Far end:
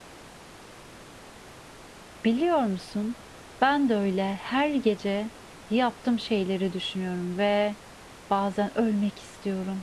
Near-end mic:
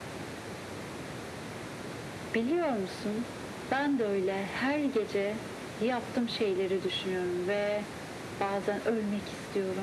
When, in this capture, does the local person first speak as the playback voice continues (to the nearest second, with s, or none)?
none